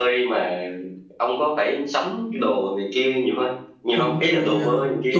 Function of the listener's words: taking over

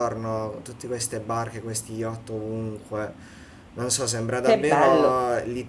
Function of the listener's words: listening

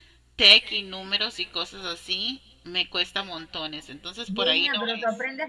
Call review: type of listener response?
taking over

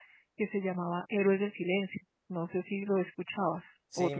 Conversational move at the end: taking over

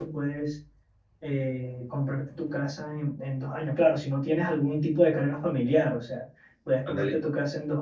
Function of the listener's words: listening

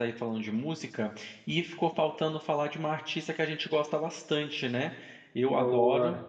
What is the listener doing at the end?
listening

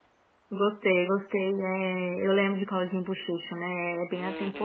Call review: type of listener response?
taking over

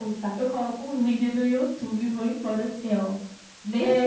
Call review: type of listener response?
taking over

